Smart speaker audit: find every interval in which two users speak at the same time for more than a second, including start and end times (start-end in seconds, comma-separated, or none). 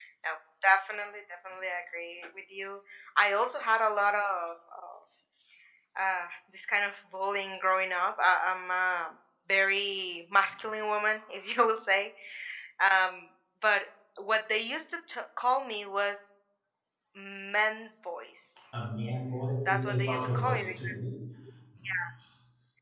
19.6-21.0